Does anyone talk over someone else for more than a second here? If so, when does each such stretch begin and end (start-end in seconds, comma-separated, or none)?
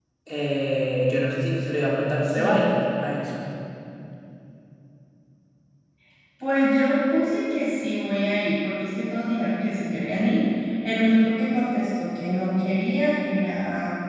none